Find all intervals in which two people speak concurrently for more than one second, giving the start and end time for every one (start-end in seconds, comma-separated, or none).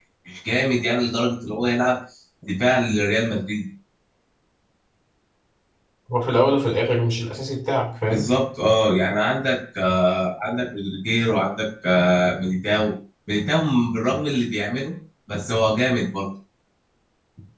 none